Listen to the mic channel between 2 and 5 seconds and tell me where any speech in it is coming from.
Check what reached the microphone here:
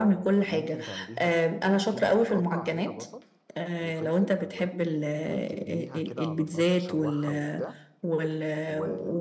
both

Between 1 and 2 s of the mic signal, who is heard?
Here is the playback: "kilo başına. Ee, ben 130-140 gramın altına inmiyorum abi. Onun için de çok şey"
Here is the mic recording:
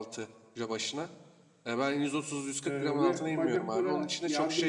echo only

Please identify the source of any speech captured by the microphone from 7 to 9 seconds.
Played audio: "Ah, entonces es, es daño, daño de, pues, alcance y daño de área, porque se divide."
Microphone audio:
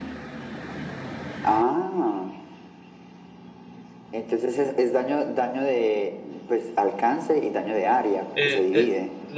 both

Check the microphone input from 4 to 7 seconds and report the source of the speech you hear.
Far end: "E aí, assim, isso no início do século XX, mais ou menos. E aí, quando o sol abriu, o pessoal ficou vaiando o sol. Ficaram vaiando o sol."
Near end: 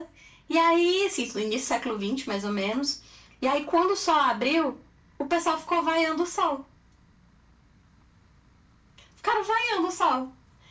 echo only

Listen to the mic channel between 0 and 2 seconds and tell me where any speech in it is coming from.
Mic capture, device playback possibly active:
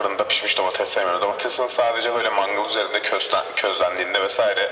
echo only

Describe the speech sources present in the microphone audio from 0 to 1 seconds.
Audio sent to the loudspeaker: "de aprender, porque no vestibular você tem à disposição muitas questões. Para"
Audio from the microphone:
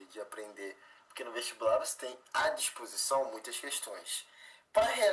echo only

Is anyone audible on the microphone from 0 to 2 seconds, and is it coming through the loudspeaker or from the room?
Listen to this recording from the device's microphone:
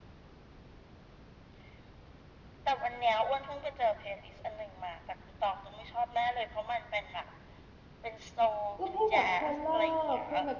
neither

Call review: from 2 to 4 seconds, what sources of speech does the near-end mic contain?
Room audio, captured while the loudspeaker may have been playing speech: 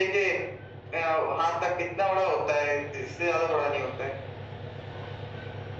echo only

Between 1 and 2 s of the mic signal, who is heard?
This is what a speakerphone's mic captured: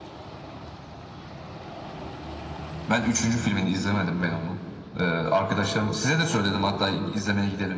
neither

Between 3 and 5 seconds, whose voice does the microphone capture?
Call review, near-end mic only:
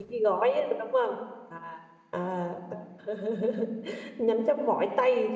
user only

